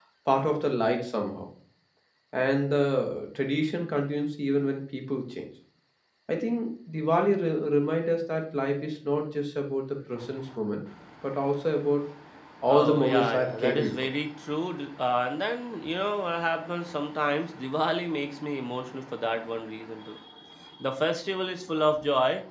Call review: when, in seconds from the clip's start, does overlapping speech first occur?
12.7 s

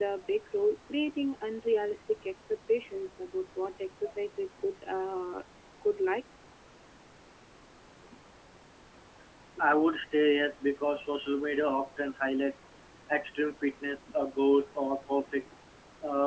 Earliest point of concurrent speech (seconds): none

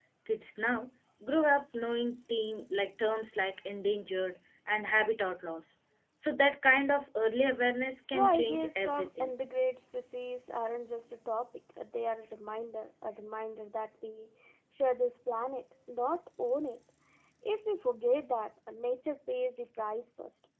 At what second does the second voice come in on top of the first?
8.1 s

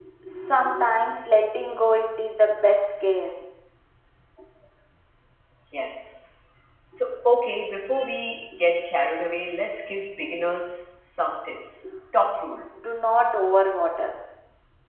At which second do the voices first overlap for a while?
none

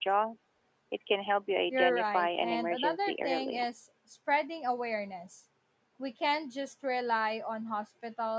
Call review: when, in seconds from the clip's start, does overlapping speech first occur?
1.7 s

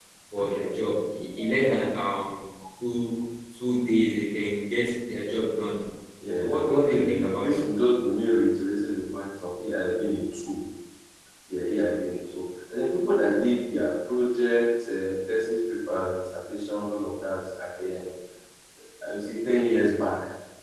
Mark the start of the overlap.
6.4 s

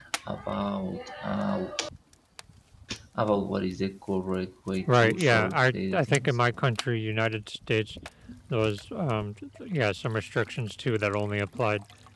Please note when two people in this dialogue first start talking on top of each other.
4.9 s

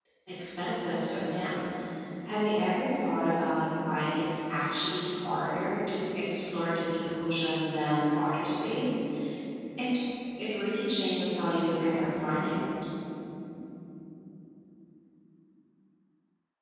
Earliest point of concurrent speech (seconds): none

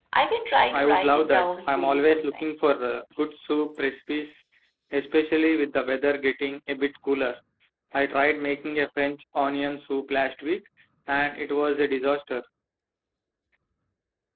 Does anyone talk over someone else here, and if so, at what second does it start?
0.7 s

